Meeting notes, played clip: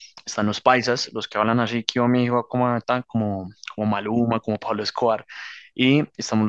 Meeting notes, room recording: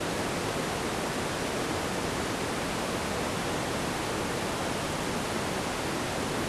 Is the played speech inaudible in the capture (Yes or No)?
Yes